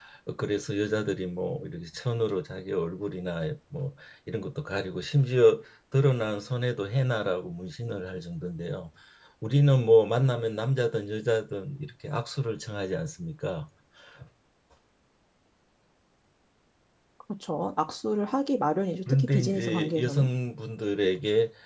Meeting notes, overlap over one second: present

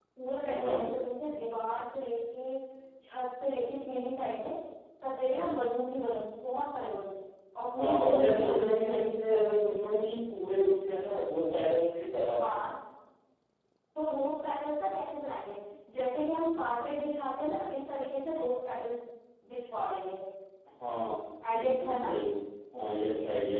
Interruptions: present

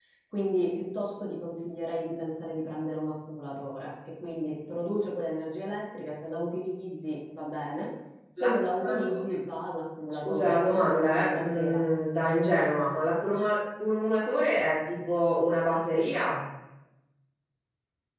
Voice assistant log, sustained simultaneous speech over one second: present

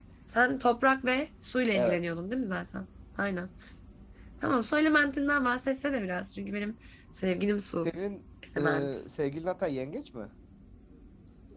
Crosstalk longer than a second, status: none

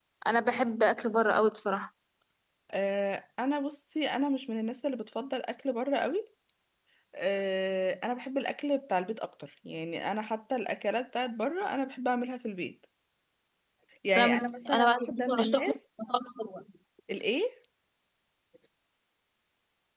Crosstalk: present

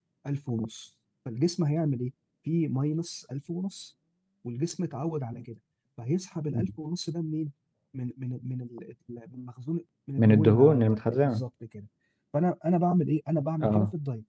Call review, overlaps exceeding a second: present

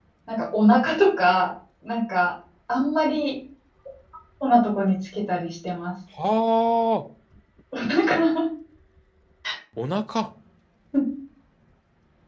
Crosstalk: none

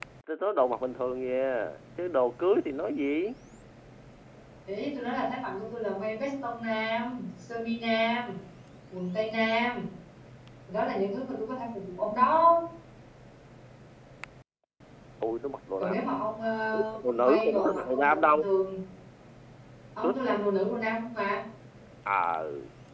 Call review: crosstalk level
present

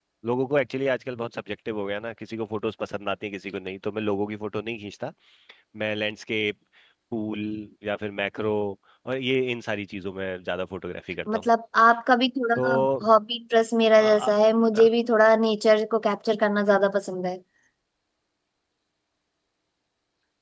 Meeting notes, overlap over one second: none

